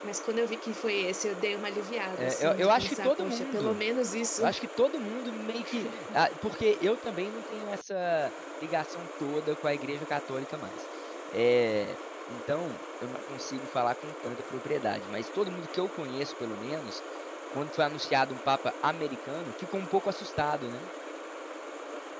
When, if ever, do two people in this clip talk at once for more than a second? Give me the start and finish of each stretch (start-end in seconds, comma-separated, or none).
2.2-3.8